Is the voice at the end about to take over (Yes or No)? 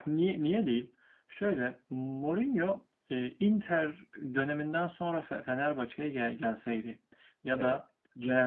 No